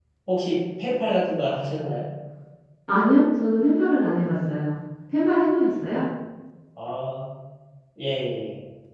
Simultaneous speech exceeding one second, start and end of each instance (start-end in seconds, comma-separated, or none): none